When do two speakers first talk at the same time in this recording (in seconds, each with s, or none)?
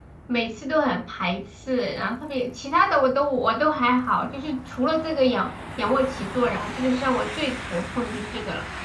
none